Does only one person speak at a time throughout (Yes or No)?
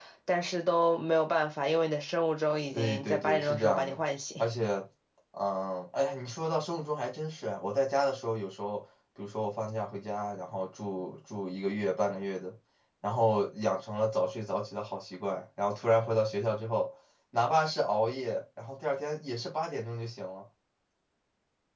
No